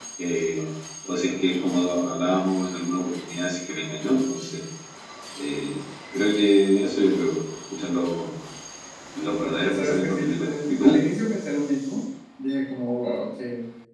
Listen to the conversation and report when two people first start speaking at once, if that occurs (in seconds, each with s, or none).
9.4 s